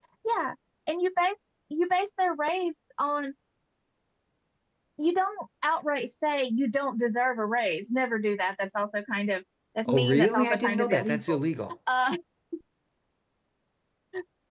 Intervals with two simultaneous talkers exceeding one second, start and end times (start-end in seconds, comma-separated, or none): 9.9-11.4